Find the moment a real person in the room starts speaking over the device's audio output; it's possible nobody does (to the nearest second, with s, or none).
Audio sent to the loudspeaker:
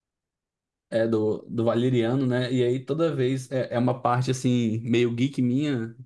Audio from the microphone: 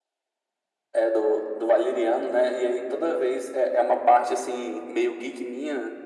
none